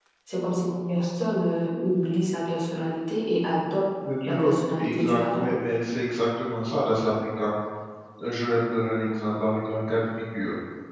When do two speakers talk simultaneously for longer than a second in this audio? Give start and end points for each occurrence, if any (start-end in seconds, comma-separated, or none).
4.2-5.5